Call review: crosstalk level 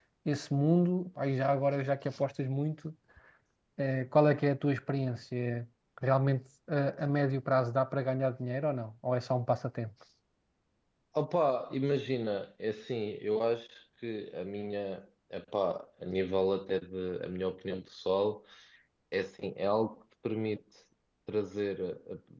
none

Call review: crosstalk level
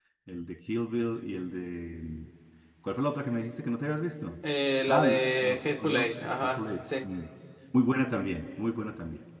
present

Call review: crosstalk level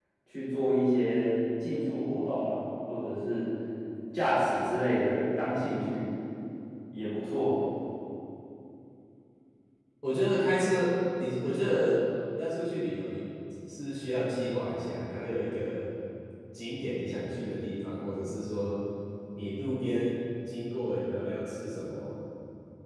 none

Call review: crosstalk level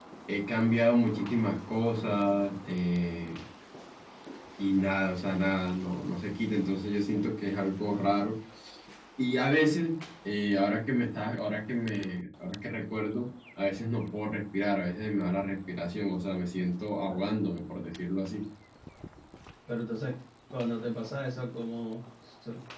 none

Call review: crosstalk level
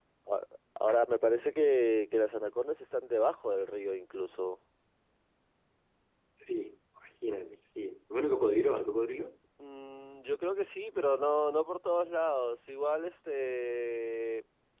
none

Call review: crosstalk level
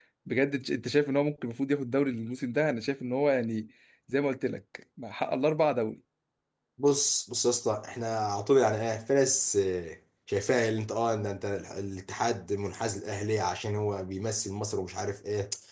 none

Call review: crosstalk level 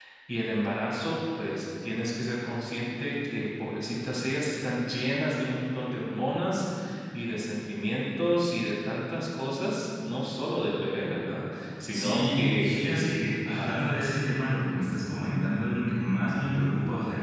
present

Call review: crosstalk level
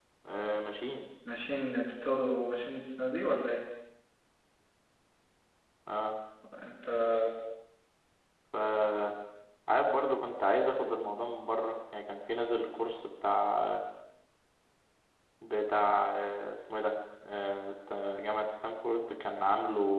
none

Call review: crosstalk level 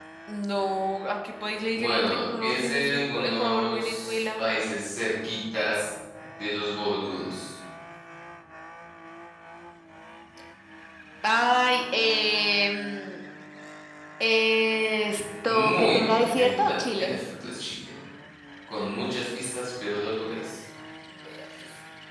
present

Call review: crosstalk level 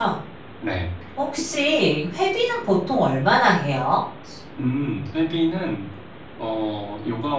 none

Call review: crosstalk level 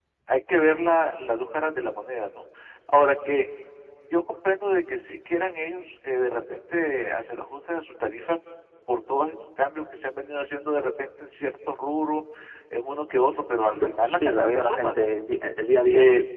present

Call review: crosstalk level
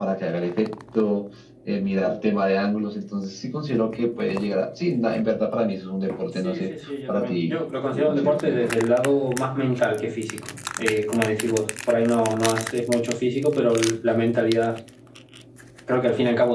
present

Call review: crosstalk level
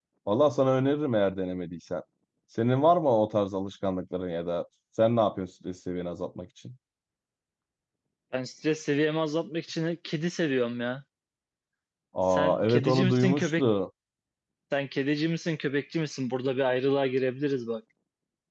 present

